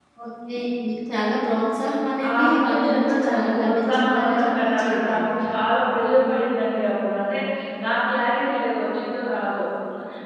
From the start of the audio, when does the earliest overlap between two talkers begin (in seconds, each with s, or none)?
2.2 s